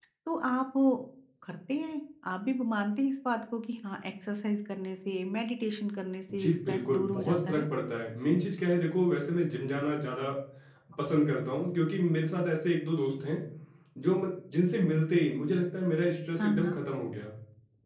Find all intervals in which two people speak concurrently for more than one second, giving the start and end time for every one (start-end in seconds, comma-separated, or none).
6.3-7.6